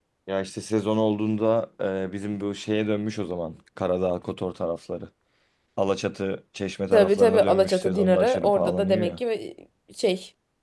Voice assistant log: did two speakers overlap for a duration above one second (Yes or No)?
Yes